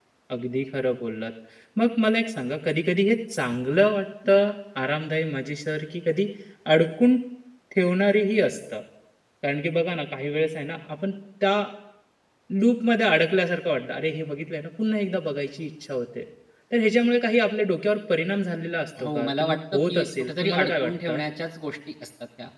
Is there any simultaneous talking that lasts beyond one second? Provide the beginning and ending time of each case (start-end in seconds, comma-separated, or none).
19.0-21.2